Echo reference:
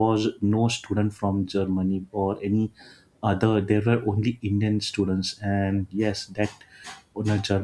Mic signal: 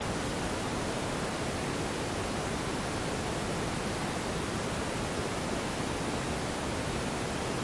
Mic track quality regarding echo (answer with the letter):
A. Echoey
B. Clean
B